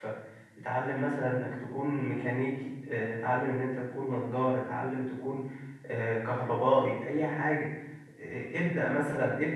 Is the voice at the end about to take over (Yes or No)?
No